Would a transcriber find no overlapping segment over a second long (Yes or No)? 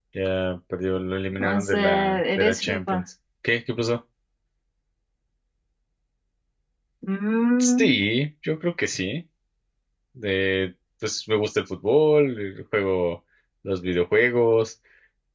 No